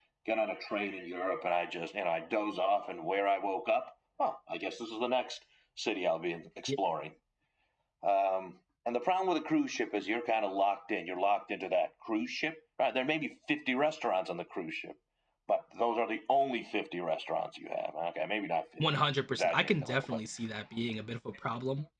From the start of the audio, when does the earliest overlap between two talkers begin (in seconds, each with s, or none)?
18.8 s